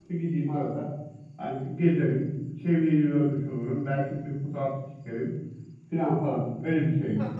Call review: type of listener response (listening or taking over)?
taking over